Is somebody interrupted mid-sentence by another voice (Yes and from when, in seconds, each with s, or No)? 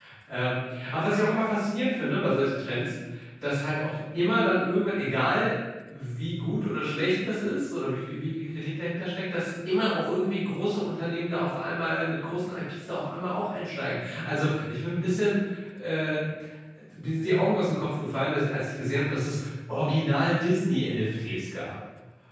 No